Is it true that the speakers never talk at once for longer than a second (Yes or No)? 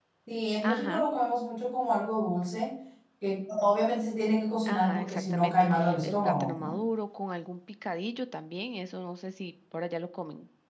No